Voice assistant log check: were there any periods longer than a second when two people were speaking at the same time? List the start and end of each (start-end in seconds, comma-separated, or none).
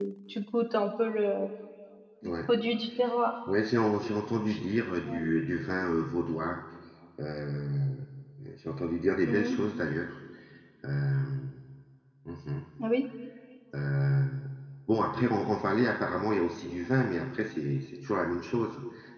none